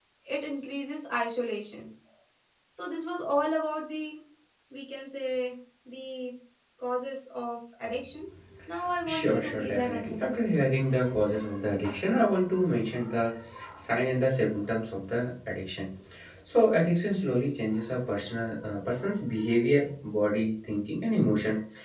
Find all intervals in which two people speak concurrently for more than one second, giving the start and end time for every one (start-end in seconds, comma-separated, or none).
9.1-10.6